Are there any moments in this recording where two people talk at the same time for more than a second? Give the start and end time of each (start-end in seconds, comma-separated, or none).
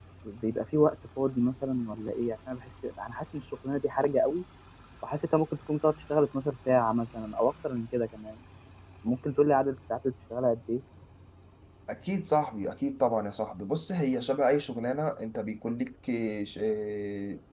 none